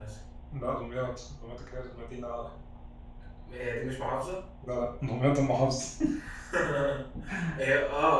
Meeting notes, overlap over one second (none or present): none